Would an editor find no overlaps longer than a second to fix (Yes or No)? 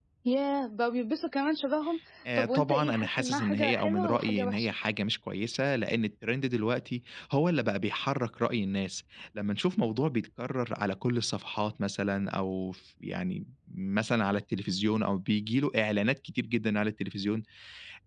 No